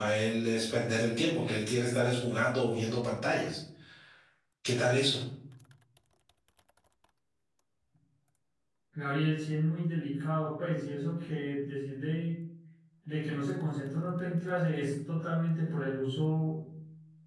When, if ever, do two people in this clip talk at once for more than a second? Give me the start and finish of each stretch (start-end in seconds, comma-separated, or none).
none